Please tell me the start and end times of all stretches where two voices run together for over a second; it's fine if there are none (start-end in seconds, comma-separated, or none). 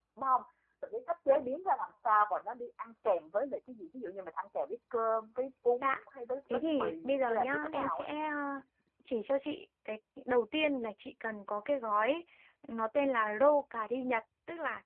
6.5-8.1